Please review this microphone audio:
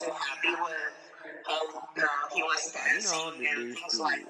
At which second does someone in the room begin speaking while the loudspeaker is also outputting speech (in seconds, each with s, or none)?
2.7 s